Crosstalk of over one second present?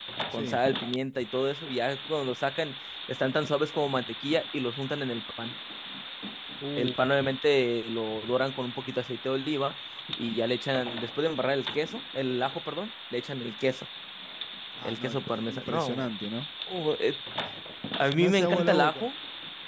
Yes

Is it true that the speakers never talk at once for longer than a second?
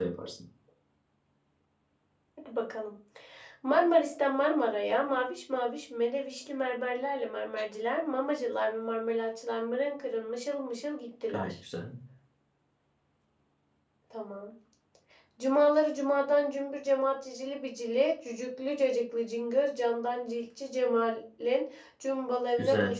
Yes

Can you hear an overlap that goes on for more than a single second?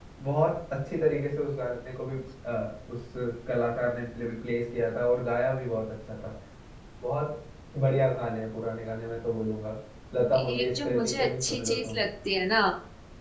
Yes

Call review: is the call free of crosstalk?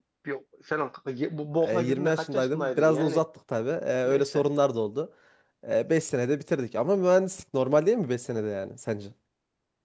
No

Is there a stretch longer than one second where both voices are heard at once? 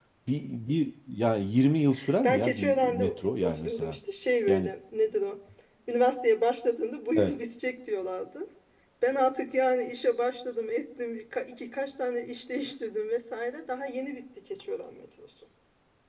Yes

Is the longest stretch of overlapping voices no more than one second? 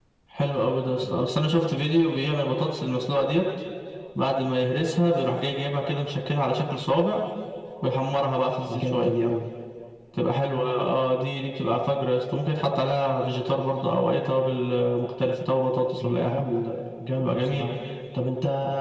Yes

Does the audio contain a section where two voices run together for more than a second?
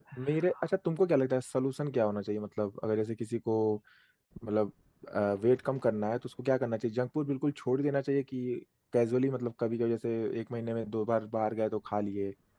No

